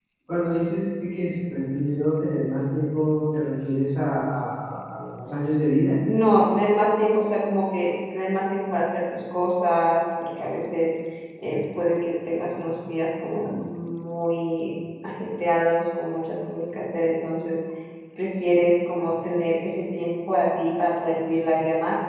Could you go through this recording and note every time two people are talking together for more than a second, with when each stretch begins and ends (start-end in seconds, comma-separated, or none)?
none